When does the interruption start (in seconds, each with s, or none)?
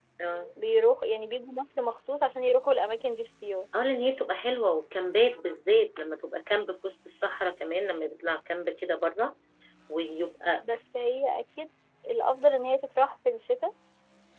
none